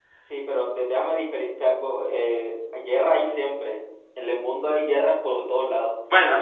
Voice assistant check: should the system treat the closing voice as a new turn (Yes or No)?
No